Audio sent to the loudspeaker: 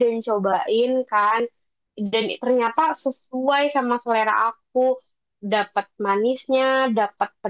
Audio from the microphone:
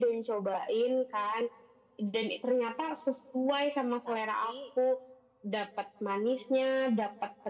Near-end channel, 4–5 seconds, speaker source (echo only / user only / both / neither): both